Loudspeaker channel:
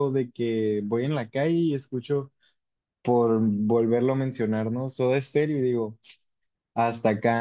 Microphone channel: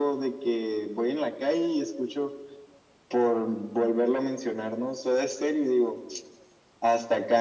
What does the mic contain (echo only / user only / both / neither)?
echo only